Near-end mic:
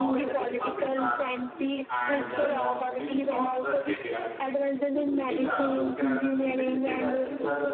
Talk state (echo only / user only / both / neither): both